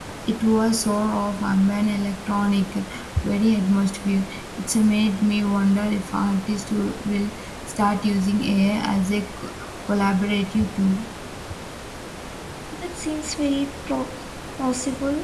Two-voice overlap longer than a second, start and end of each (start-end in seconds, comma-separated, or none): none